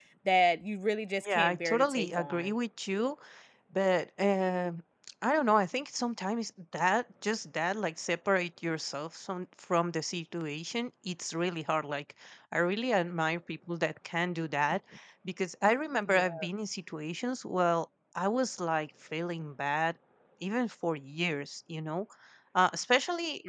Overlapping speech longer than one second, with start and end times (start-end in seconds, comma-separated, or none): 1.2-2.5